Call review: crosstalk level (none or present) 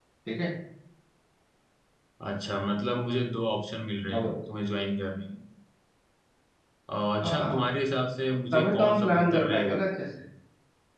present